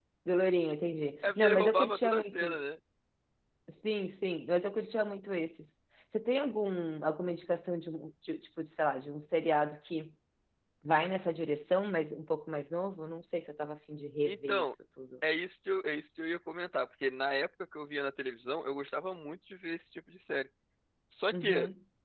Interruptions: present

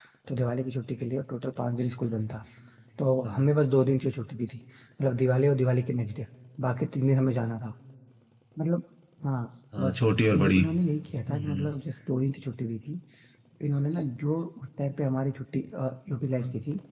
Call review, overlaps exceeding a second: none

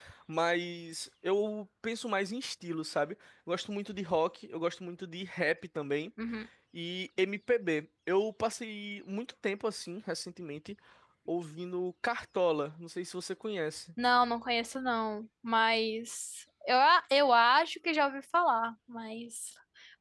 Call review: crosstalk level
none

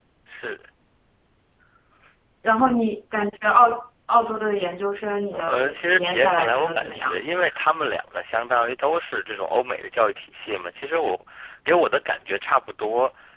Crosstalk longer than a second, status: present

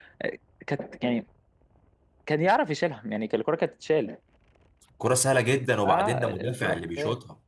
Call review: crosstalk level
present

